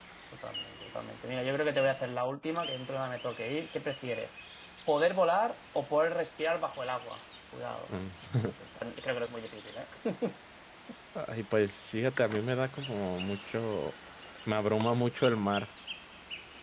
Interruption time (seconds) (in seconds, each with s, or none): none